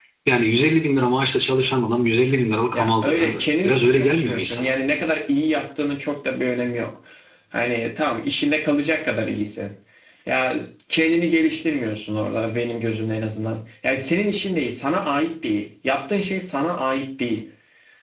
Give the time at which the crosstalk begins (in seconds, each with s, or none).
2.7 s